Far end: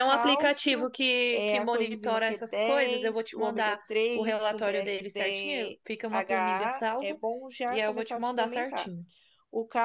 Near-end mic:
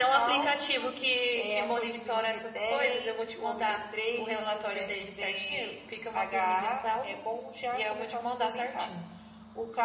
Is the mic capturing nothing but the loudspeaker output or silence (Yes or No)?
Yes